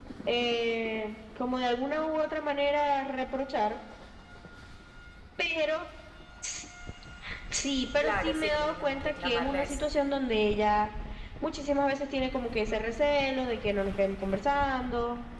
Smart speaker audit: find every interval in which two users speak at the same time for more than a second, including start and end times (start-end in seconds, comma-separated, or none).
8.0-9.9